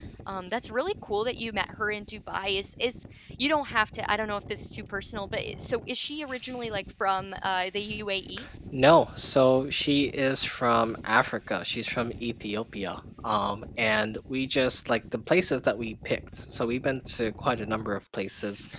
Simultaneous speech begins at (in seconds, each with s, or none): none